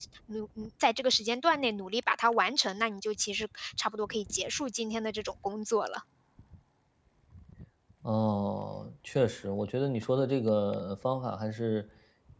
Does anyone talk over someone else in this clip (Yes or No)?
No